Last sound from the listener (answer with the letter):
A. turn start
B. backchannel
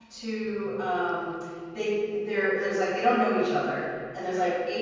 B